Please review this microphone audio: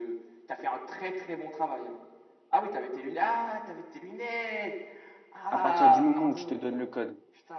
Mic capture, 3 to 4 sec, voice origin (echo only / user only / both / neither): echo only